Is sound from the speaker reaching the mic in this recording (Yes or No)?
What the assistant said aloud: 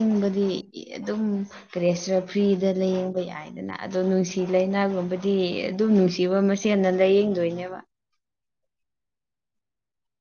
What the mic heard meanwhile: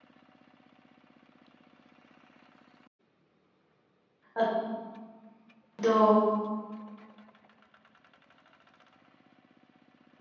No